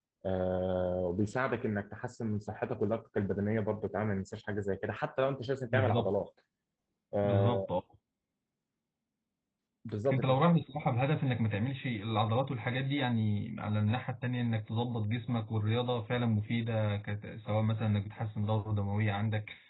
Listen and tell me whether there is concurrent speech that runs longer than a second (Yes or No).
No